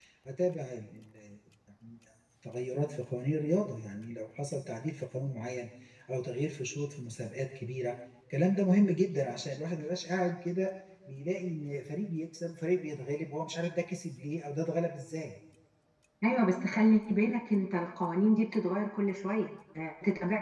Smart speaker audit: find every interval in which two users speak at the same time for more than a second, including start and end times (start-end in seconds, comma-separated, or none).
none